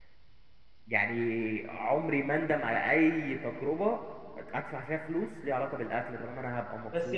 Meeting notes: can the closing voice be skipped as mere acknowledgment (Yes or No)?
No